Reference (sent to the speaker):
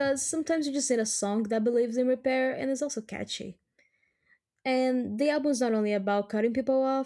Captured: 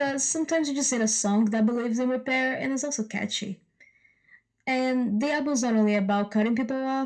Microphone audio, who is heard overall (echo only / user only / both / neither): echo only